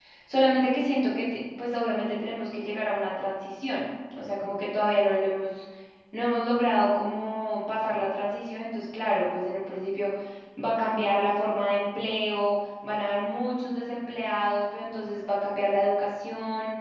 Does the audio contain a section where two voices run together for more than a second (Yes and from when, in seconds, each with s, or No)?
No